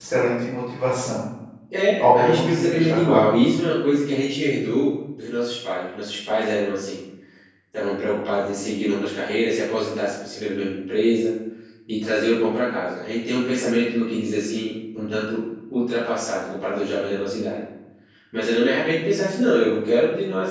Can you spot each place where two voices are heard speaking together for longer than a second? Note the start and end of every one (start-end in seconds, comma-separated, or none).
2.0-3.3